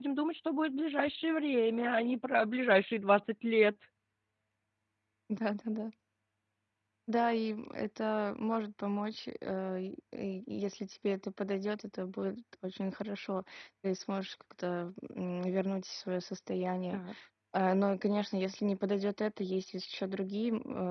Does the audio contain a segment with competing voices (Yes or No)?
No